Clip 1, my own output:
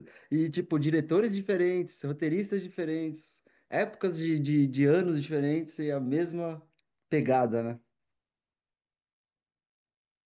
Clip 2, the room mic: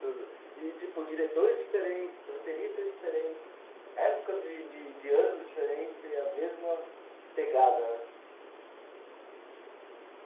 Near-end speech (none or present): none